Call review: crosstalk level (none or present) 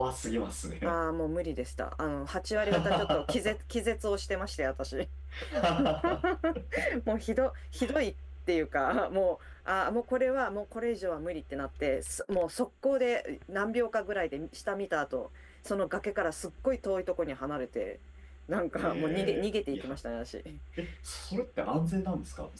present